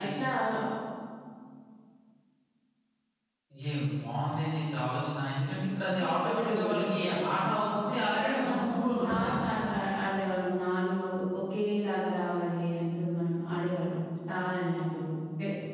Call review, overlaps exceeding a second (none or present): present